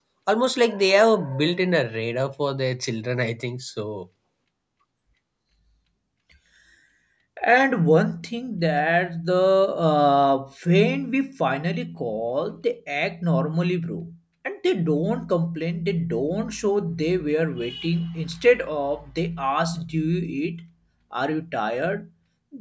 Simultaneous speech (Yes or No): No